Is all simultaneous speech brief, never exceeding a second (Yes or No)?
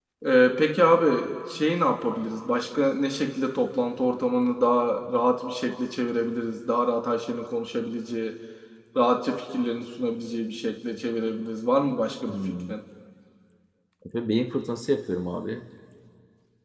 Yes